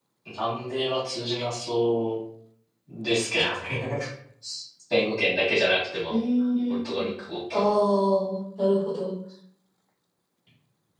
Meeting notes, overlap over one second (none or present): none